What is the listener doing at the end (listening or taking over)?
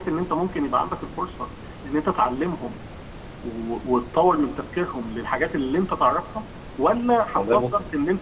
listening